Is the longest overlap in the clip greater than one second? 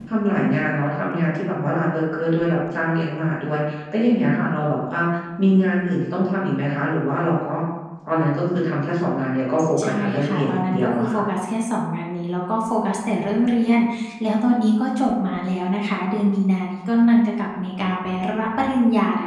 Yes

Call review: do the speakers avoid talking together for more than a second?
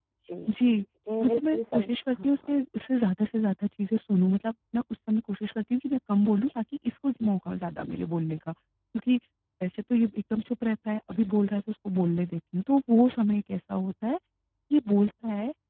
No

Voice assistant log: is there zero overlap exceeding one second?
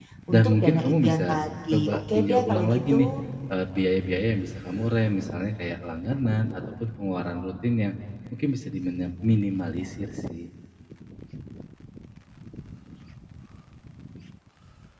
No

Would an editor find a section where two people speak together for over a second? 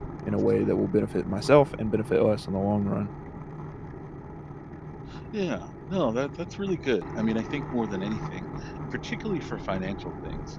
No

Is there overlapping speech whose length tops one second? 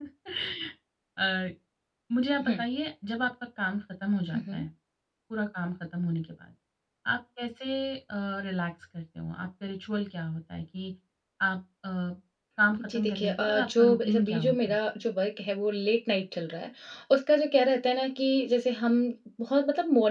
Yes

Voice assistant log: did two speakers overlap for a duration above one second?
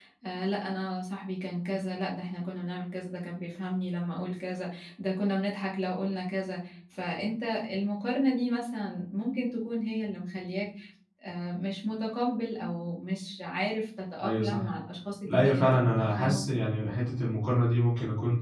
Yes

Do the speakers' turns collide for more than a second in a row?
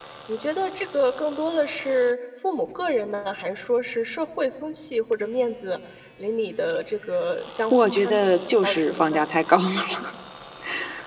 Yes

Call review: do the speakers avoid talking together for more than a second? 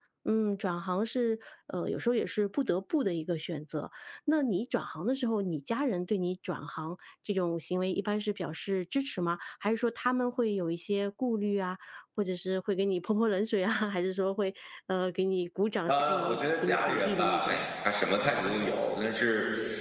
No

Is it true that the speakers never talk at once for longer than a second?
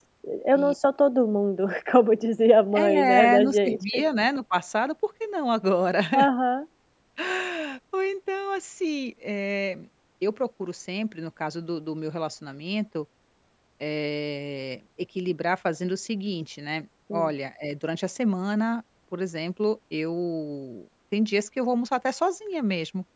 No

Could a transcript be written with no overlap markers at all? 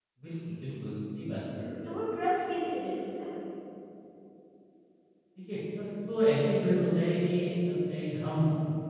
Yes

